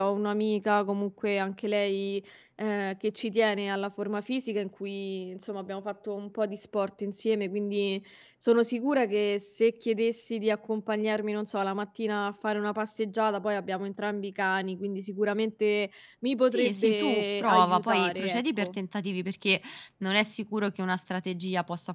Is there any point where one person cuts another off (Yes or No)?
Yes